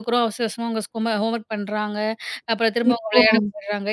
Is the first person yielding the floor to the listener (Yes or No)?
No